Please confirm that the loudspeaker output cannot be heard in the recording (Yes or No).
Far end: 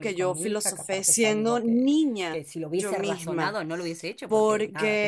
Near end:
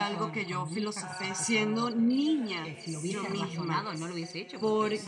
No